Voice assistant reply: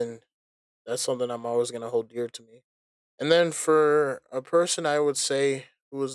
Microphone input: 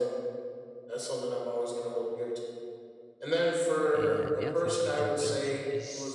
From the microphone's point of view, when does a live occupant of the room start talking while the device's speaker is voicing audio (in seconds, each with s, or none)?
3.9 s